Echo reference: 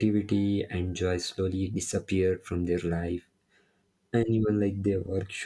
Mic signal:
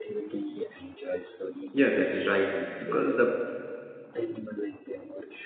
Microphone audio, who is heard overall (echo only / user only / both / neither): both